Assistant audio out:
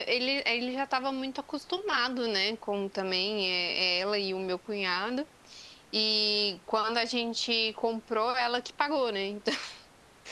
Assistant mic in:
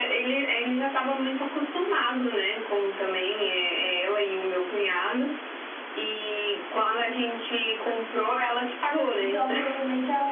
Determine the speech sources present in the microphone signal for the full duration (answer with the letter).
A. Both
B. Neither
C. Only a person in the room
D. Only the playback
A